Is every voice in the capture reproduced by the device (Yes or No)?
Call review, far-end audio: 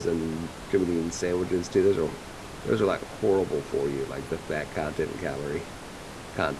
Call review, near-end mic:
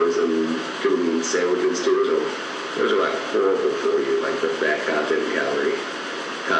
Yes